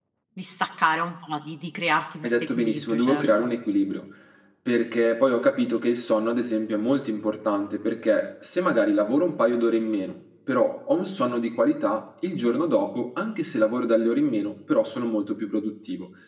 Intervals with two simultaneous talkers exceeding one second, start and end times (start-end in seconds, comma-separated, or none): 2.2-3.5